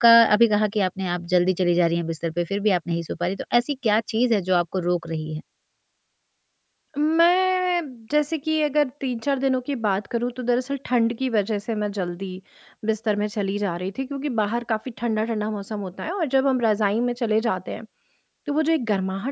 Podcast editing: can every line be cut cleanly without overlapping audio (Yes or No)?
Yes